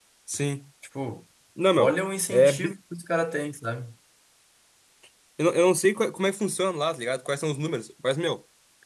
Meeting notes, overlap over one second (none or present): none